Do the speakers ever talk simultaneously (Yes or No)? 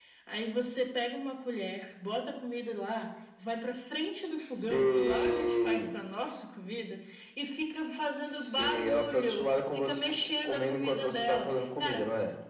Yes